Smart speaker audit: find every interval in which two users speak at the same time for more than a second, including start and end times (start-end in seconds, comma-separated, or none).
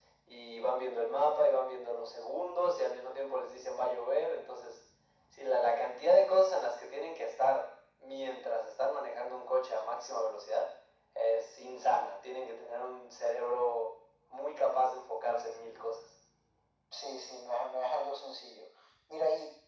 none